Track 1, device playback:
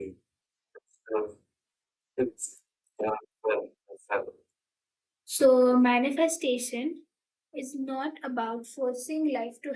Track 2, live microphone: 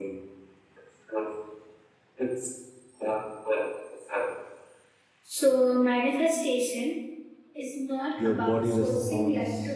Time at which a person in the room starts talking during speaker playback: 8.2 s

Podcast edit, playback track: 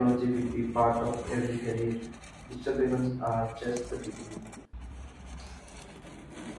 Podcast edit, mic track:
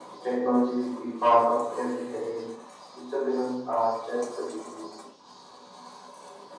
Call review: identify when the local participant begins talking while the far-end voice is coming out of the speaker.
none

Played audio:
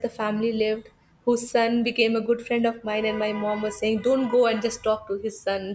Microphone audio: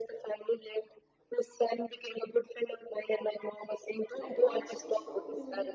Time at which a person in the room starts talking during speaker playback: 4.1 s

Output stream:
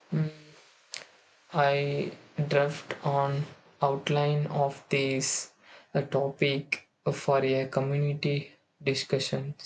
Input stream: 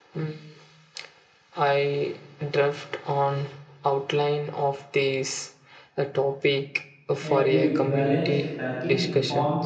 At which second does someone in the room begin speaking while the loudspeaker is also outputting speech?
7.2 s

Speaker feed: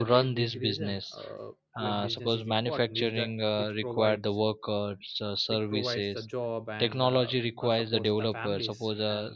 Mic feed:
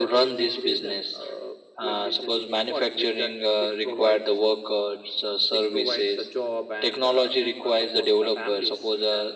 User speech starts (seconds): none

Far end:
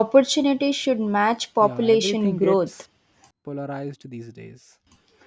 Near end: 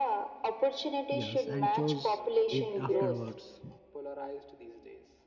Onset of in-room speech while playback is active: 1.1 s

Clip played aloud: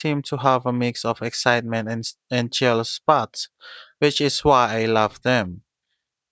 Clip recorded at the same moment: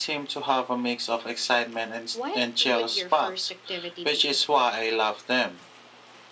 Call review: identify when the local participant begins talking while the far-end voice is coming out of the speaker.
2.1 s

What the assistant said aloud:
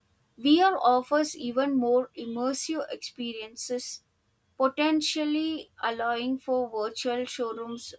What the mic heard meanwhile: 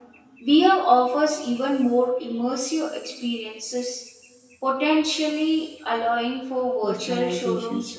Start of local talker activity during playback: 6.8 s

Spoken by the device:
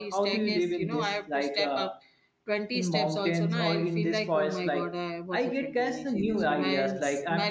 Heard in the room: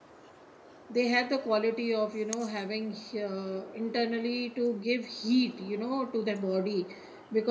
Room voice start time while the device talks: 0.9 s

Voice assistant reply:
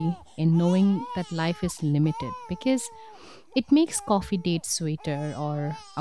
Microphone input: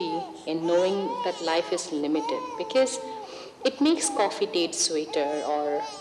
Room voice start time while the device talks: none

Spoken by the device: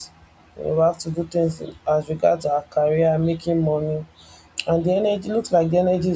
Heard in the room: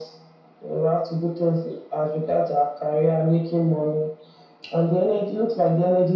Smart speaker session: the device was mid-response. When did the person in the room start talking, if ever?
none

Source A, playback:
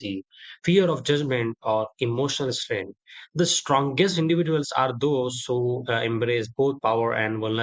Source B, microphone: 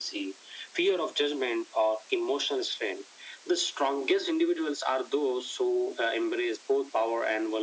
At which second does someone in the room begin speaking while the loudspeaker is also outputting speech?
none

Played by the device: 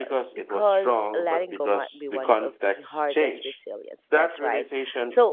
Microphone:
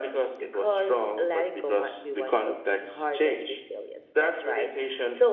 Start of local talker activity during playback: none

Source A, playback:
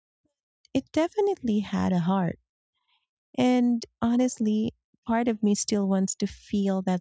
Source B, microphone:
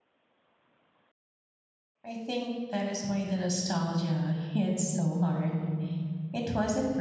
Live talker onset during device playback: 2.0 s

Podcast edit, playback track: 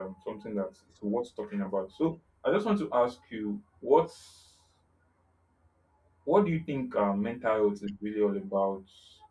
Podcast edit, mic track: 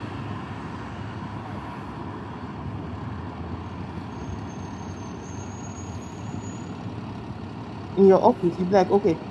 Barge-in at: 7.9 s

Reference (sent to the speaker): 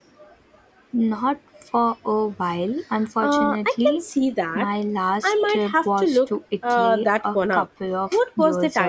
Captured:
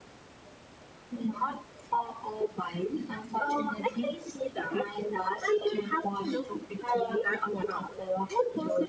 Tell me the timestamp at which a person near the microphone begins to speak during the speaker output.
none

